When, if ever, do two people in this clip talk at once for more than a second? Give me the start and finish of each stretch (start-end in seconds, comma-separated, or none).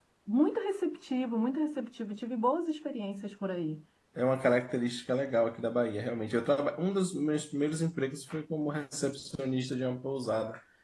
none